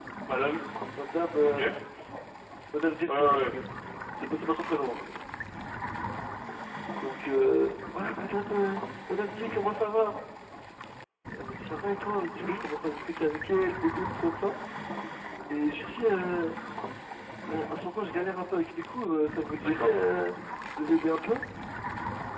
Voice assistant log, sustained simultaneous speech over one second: none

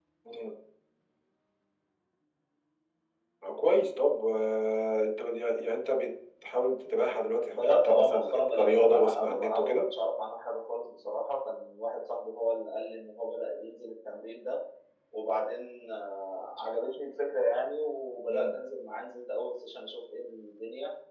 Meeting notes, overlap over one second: present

